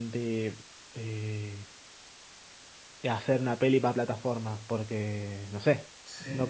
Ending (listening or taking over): taking over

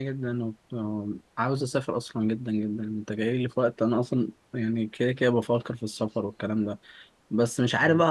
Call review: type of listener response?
listening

